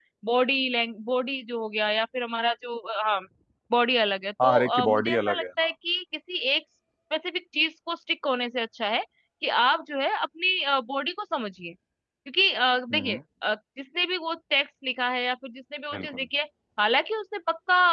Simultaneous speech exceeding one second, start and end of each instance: 4.4-5.7

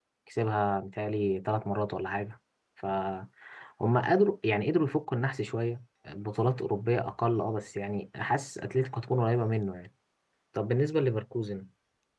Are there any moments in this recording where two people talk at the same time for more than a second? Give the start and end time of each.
none

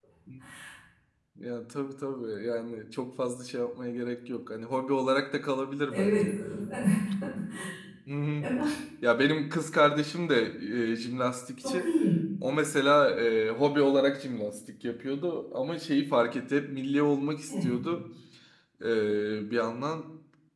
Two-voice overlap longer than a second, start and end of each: none

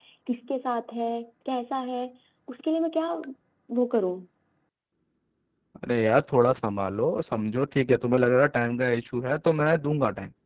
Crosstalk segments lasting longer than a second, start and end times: none

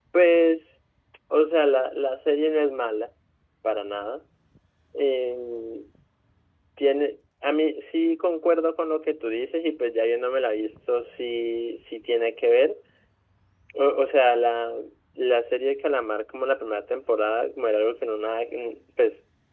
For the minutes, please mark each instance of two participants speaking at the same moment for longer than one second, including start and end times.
none

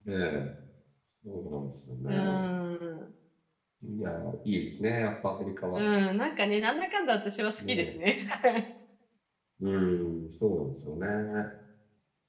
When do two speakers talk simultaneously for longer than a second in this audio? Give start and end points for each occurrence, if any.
none

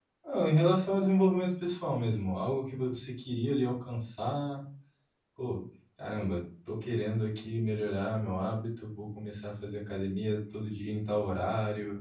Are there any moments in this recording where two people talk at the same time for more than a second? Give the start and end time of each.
none

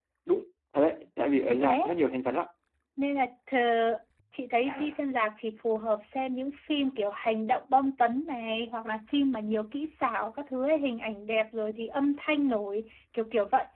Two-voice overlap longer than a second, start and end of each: none

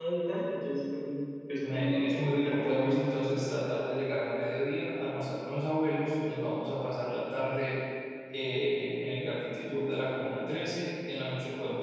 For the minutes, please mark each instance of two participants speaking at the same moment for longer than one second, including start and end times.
1.7-3.0

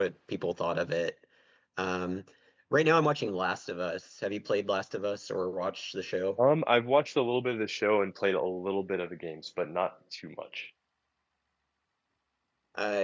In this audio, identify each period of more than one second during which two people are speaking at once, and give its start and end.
none

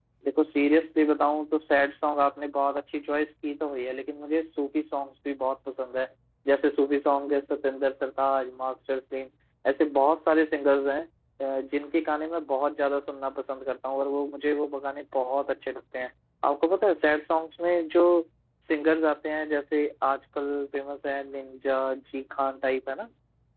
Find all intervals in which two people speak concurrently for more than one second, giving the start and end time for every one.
none

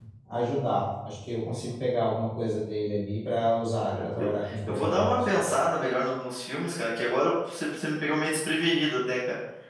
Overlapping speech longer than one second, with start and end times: 3.9-5.2

